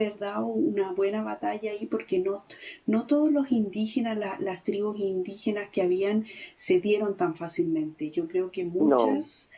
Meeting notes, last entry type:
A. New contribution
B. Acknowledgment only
B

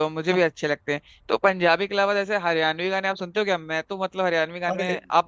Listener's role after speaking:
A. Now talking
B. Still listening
B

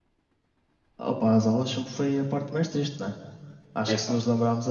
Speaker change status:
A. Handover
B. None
B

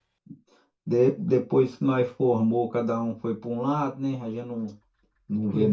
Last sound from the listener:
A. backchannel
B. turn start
B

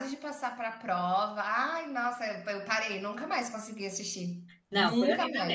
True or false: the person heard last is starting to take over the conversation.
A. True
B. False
A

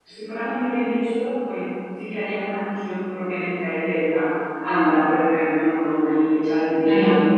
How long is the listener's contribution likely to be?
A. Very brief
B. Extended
A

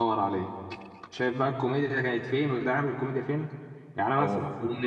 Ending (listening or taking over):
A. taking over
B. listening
B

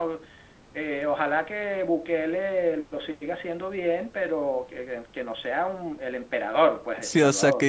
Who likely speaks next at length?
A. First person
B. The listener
B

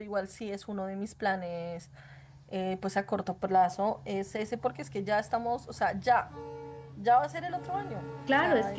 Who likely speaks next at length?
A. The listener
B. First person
A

